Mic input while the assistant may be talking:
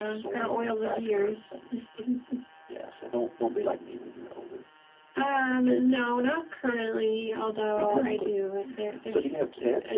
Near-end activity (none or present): none